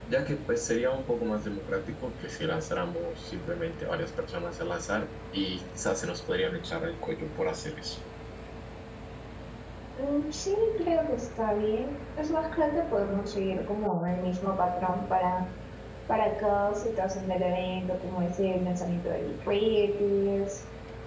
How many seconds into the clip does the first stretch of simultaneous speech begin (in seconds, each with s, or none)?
none